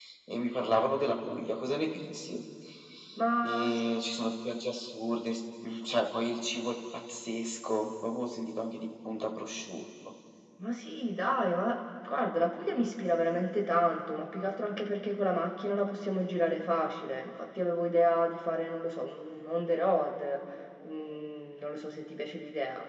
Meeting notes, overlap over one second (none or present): none